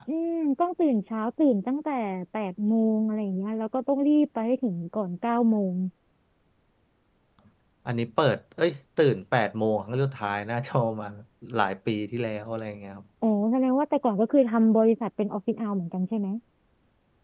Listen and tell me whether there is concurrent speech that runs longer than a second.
No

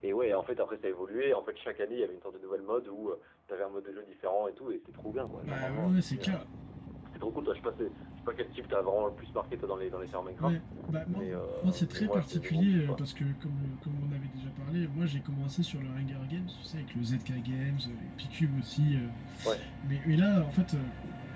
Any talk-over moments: Yes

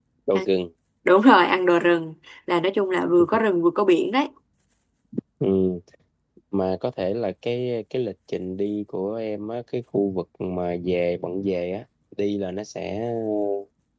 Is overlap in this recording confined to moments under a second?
Yes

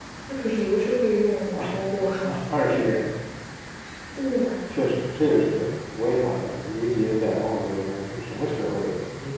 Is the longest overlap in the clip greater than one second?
No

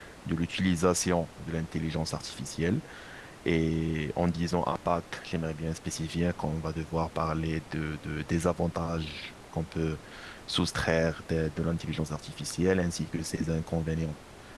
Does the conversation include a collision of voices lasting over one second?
No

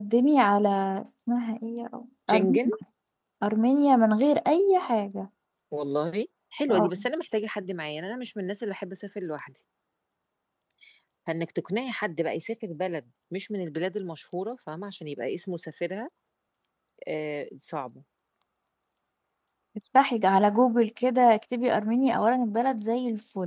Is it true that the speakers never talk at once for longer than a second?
Yes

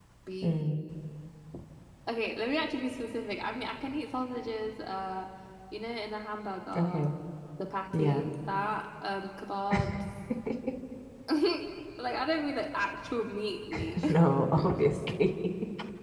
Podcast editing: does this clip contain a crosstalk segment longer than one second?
No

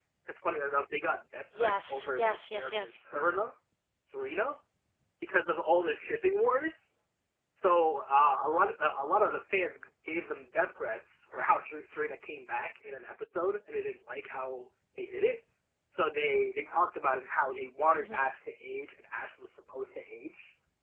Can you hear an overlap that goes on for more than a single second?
Yes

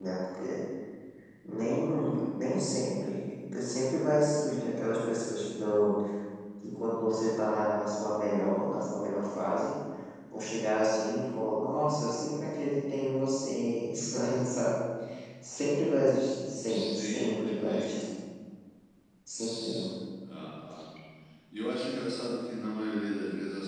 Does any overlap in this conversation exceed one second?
Yes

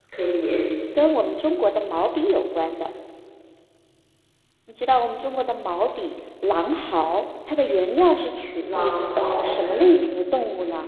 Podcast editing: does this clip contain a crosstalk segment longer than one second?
Yes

